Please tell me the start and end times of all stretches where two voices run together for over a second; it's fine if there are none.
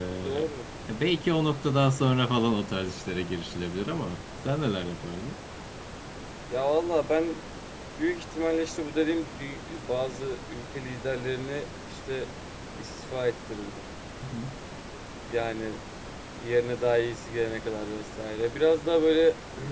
none

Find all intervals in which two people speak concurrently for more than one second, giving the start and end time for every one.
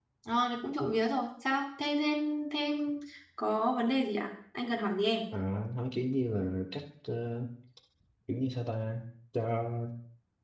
none

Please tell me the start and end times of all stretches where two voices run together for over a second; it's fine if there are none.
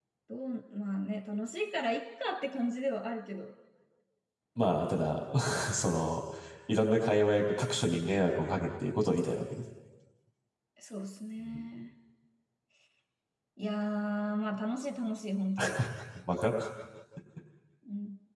none

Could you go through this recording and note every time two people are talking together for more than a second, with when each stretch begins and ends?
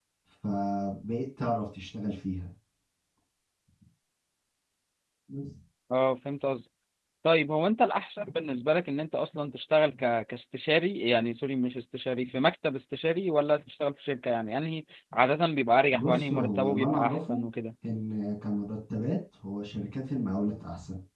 15.9-17.4

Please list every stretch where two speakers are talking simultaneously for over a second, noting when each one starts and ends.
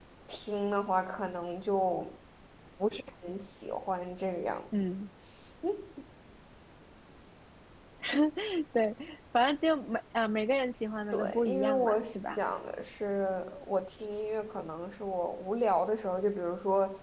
11.1-12.4

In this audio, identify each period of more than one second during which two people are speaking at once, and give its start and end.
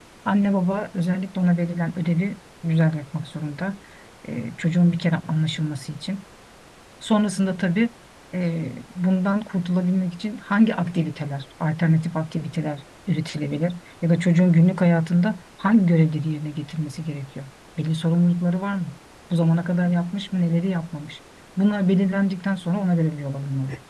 none

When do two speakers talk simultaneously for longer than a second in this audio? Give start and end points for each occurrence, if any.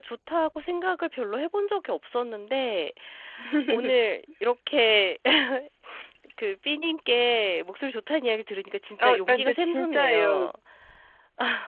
9.0-10.5

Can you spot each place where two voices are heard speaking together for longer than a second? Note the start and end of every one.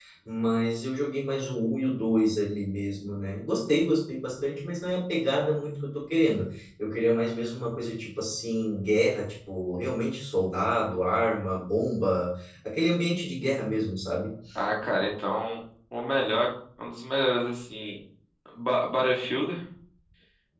none

